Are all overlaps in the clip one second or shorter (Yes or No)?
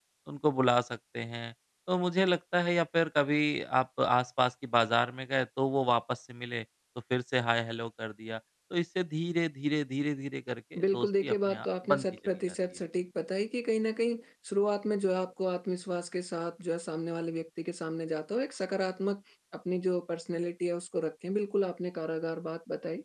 No